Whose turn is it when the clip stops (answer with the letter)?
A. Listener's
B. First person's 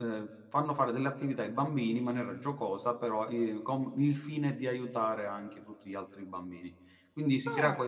B